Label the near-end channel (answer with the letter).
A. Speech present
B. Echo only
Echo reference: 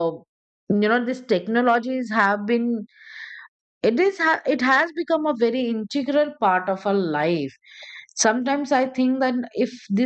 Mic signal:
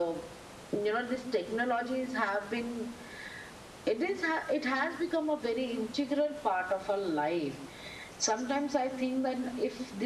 B